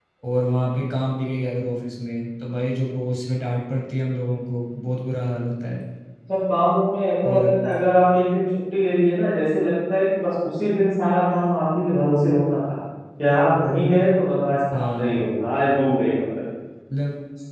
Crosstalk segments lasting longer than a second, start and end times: none

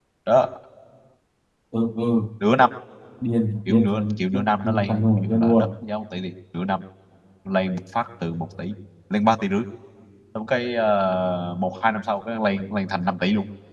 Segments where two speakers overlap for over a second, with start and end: 3.7-5.6

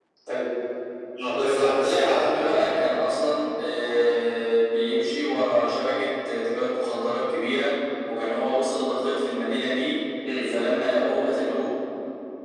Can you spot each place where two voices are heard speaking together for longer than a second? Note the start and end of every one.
1.2-2.8

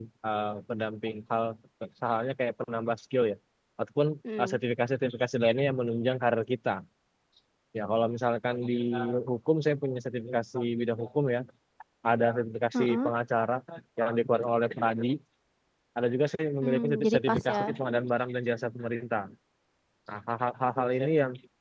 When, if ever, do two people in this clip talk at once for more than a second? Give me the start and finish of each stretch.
16.6-18.0

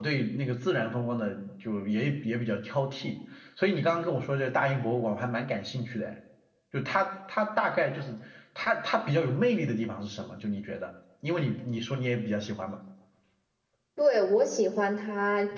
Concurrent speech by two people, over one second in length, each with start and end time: none

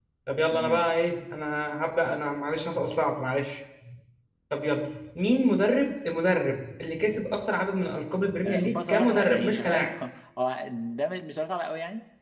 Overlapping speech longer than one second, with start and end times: 8.4-9.8

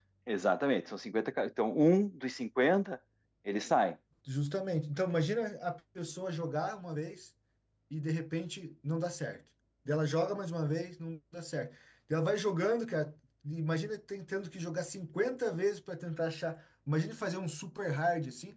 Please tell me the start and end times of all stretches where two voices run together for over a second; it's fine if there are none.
none

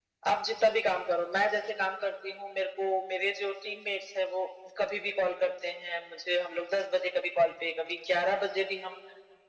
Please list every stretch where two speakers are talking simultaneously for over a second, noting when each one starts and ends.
none

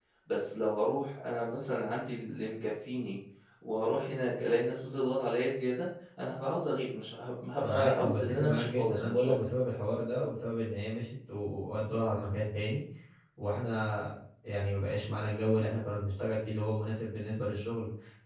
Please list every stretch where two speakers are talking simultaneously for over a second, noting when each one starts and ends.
7.6-9.3

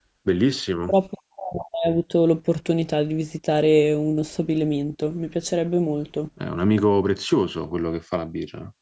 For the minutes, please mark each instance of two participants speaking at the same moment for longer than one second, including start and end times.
none

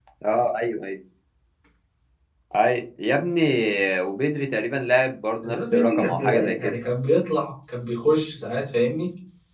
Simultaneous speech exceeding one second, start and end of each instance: 5.4-6.8

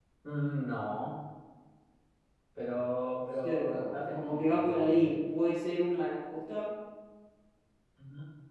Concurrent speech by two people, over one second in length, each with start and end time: 3.4-5.1

